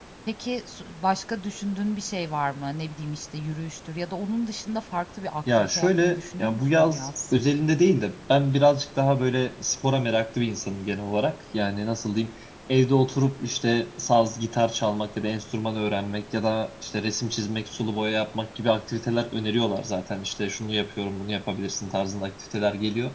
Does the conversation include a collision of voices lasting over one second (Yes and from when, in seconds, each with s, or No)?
Yes, from 5.5 s